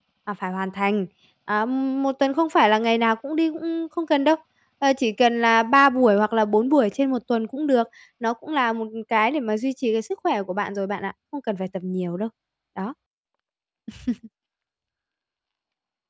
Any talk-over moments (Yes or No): No